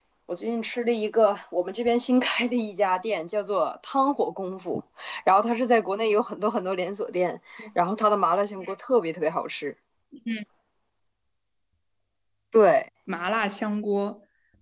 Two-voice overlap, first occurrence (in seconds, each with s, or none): none